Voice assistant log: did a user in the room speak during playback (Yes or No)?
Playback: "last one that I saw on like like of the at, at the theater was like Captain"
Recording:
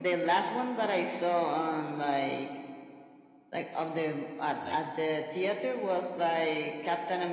Yes